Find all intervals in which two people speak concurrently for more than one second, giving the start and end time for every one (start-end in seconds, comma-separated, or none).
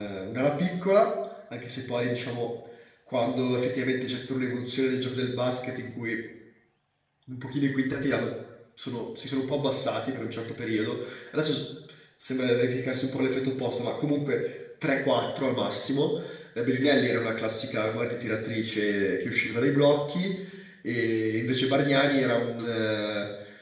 none